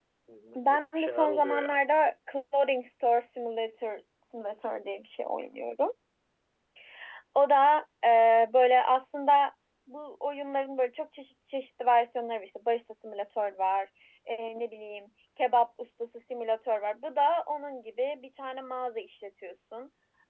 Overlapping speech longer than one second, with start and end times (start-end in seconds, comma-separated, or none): 0.6-1.8